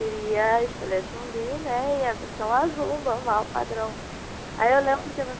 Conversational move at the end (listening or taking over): listening